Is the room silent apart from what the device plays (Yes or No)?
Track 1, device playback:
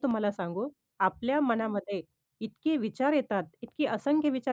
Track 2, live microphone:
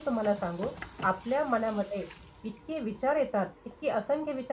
Yes